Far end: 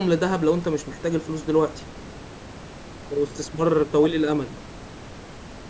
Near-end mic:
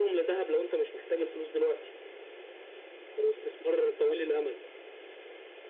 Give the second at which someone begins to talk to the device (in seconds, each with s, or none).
none